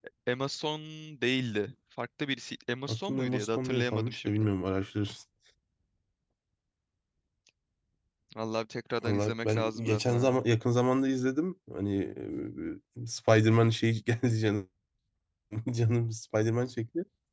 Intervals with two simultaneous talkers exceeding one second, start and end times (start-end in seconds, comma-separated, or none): 2.9-4.5, 9.1-10.3